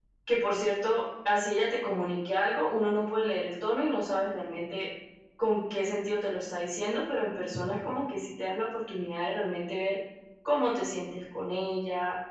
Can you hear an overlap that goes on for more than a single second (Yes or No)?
No